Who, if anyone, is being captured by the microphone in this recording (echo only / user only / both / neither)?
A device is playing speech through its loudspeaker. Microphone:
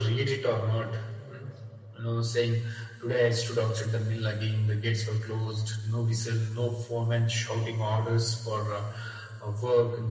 echo only